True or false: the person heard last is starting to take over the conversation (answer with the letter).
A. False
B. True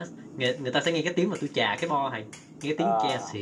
A